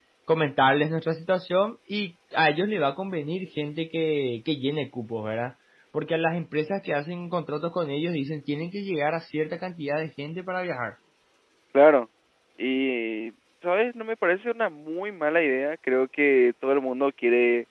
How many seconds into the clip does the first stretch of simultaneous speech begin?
none

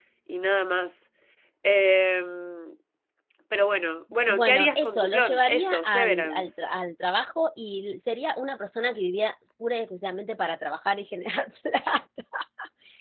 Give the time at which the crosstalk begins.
4.3 s

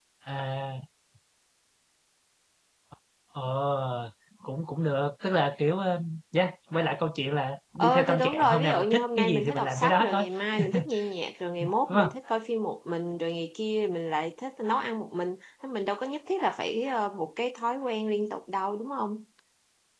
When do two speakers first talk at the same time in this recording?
7.8 s

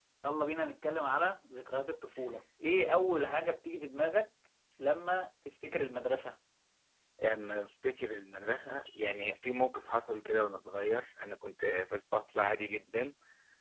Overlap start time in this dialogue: none

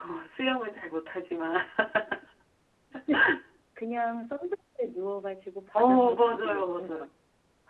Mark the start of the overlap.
5.8 s

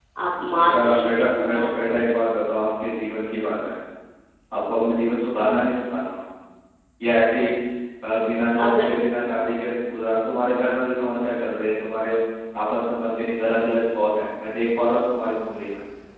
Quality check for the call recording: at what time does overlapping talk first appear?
0.6 s

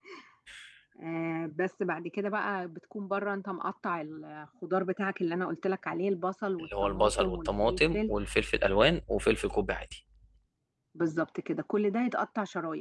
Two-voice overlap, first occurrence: 6.6 s

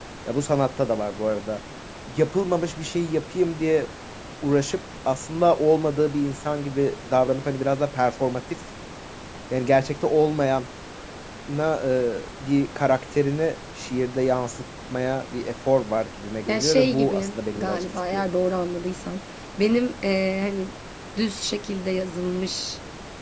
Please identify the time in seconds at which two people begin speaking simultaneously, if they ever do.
16.5 s

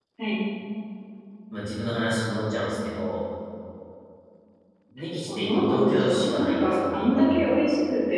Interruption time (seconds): 5.3 s

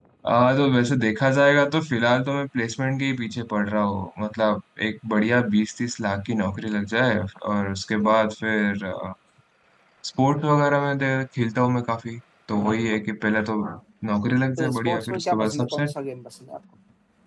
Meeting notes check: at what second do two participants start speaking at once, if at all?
14.6 s

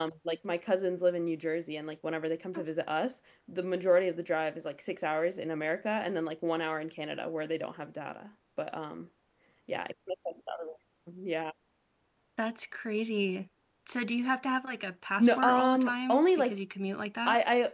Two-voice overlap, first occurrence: 15.2 s

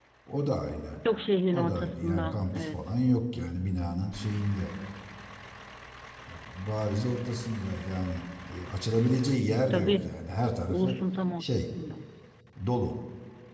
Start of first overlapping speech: 1.5 s

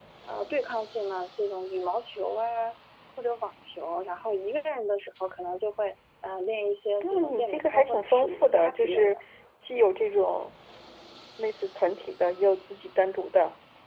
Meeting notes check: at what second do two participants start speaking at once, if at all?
7.0 s

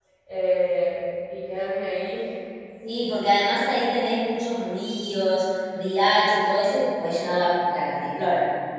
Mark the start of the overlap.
none

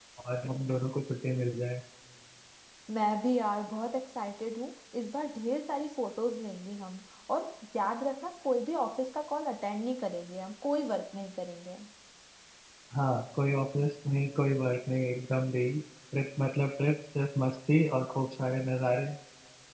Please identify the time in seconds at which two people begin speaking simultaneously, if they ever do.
none

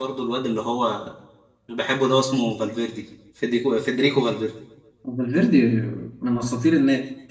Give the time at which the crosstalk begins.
none

